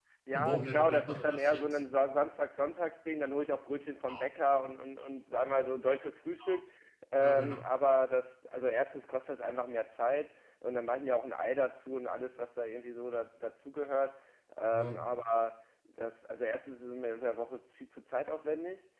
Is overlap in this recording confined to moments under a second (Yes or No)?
No